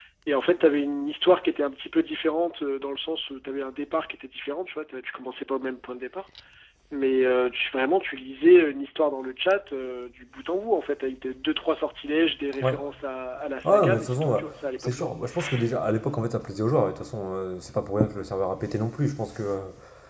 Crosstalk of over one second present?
Yes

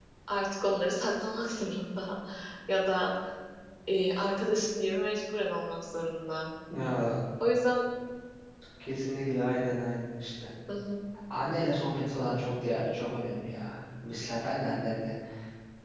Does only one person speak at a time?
Yes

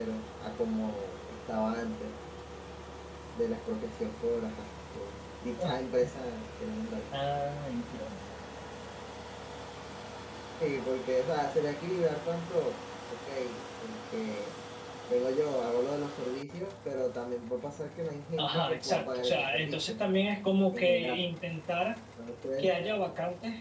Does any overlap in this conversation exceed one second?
Yes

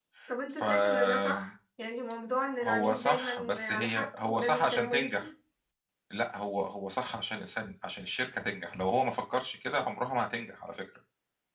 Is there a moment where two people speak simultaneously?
Yes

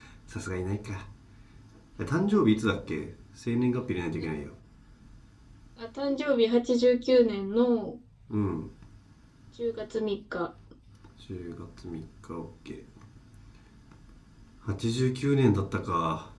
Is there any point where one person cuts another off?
No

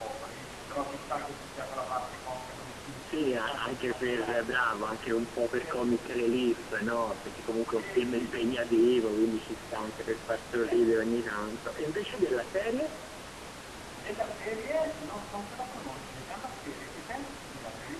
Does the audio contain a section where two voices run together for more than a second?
Yes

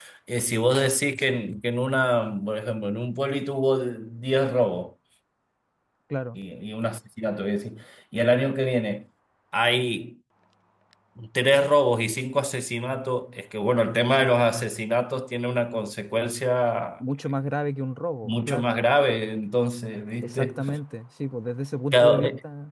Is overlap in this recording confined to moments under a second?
Yes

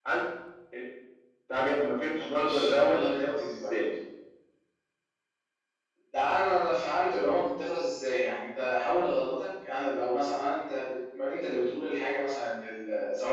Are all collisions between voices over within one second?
No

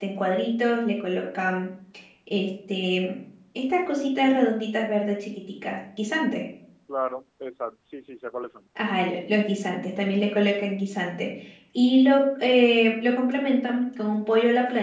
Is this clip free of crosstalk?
Yes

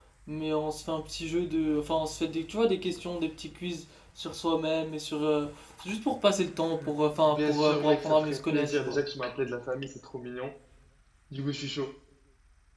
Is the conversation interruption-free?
No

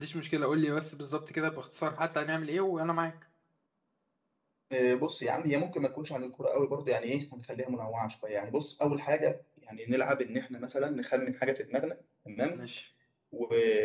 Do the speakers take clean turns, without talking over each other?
Yes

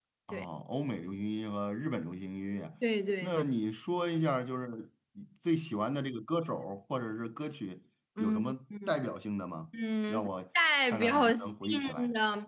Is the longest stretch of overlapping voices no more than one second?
No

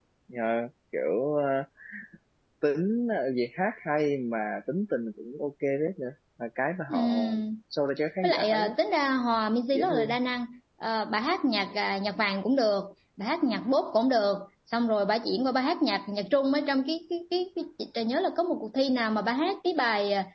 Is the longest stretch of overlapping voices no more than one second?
Yes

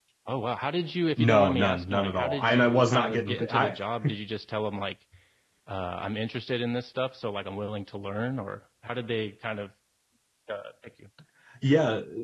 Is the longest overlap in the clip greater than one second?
Yes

